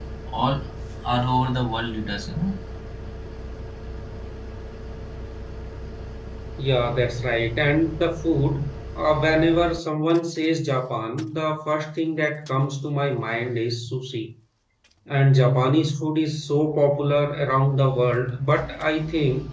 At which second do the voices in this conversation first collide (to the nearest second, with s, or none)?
none